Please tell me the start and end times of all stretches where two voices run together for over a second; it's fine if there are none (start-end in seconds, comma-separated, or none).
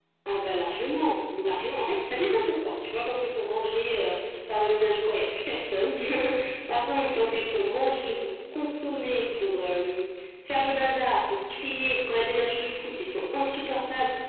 none